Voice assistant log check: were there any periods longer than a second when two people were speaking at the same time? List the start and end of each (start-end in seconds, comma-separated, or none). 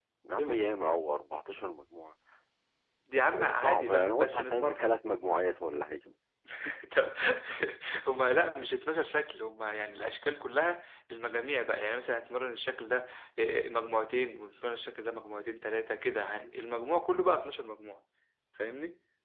3.3-4.8